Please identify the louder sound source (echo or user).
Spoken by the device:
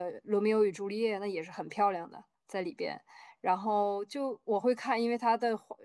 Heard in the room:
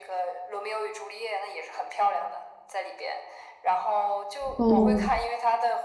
user